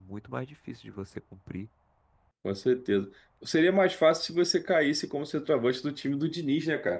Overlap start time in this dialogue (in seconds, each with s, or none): none